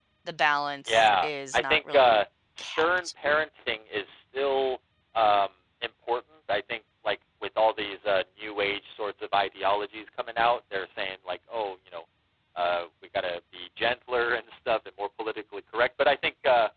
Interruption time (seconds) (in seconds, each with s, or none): 0.9 s